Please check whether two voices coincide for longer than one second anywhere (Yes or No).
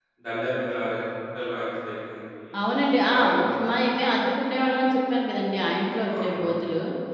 No